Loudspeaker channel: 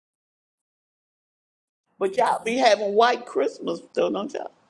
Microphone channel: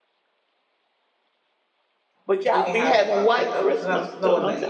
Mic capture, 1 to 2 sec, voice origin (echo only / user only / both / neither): neither